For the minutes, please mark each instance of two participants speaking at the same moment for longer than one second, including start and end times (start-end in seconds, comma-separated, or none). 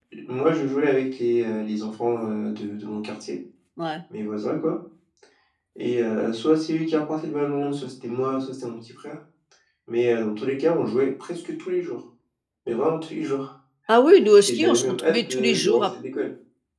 14.5-15.9